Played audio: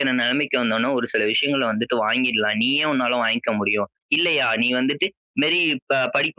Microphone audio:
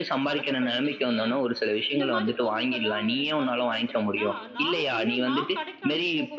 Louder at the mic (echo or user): echo